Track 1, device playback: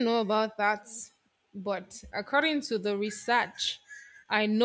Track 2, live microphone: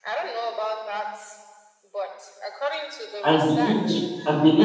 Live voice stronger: Yes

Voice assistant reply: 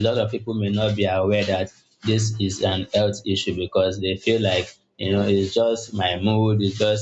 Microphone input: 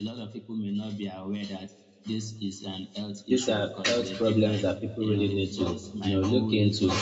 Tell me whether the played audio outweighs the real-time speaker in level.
No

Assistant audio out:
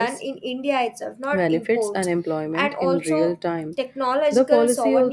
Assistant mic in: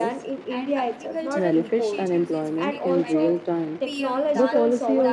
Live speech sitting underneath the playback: Yes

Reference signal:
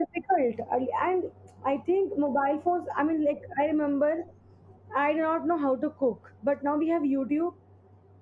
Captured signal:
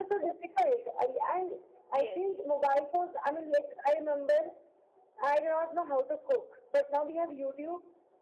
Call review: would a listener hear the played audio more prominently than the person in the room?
Yes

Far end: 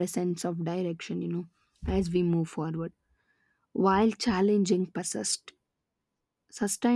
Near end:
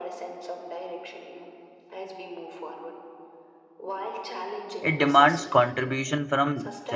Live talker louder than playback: Yes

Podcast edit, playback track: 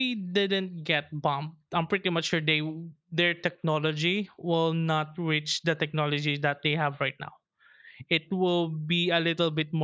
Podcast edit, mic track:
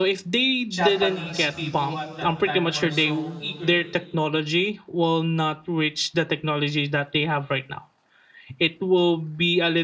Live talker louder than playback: No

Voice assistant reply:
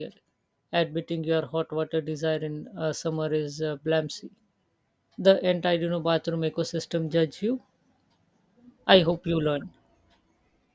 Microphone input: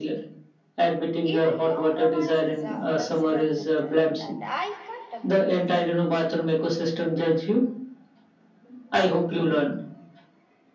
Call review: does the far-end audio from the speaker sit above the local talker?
Yes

